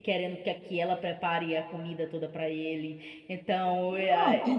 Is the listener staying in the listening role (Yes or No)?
No